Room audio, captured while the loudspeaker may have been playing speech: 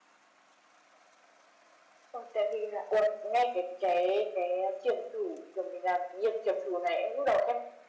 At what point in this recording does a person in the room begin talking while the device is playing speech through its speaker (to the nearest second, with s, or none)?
none